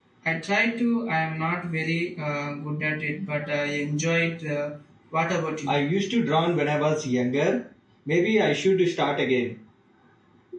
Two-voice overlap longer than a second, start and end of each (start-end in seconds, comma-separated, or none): none